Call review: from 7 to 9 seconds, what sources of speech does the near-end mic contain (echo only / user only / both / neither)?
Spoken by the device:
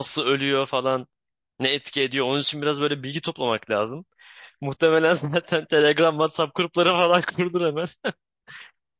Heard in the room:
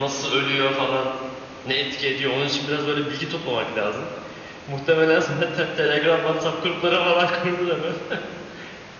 echo only